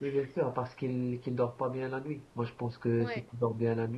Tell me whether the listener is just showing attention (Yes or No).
Yes